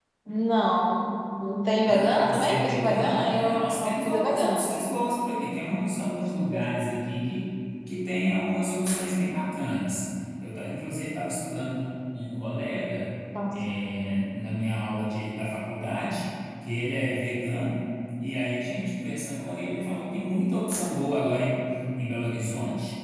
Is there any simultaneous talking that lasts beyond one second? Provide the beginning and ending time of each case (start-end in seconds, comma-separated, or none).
1.9-5.0